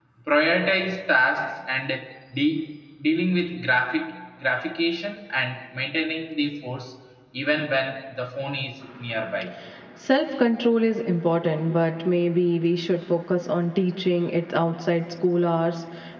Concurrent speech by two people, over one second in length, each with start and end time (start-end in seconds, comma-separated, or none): none